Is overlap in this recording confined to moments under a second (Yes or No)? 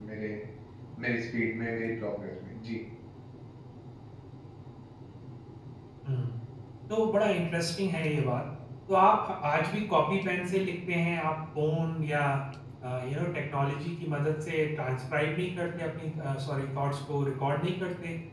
Yes